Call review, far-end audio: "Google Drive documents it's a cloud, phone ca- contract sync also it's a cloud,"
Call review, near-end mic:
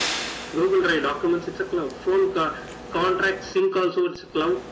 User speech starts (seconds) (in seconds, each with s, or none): none